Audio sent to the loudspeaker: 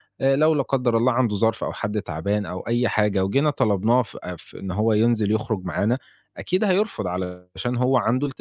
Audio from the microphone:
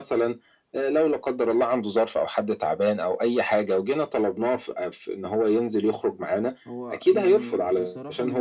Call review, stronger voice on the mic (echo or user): echo